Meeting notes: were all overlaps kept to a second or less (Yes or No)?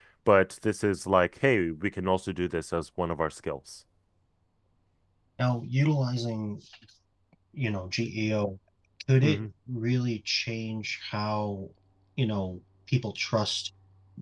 Yes